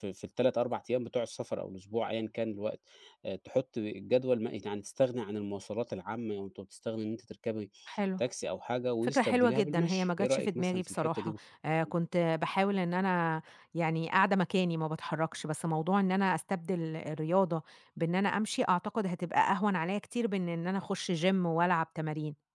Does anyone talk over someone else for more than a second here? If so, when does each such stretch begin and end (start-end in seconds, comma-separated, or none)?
9.0-11.3